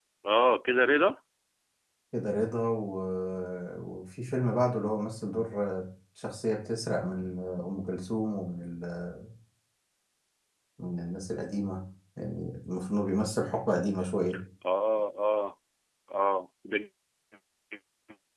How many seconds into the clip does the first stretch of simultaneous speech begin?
none

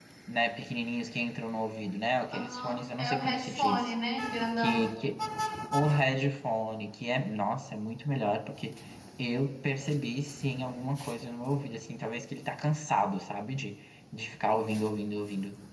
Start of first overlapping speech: 2.3 s

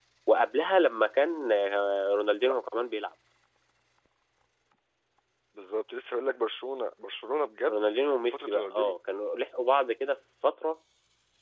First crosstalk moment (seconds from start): 7.7 s

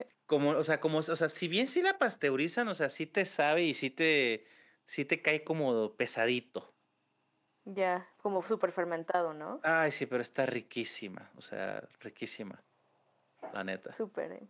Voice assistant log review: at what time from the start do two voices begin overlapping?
none

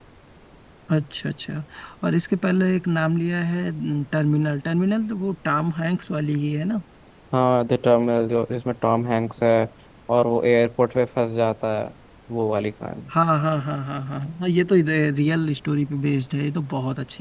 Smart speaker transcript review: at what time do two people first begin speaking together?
none

